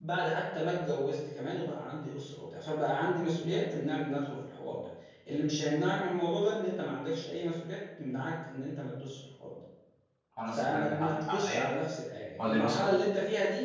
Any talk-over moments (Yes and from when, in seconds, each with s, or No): Yes, from 10.5 s